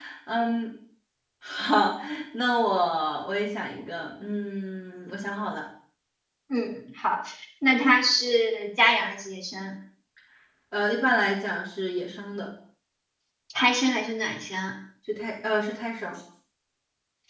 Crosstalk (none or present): none